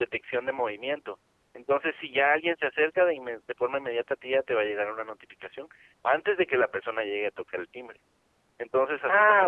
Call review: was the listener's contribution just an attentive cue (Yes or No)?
No